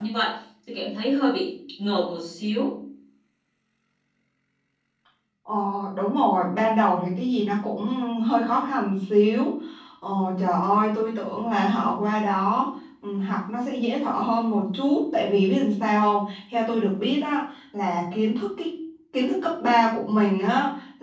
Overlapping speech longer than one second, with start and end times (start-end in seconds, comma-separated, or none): none